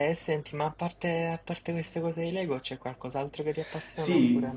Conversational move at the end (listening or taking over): taking over